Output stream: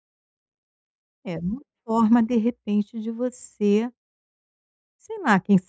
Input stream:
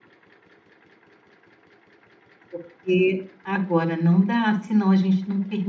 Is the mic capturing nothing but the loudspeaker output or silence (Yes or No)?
No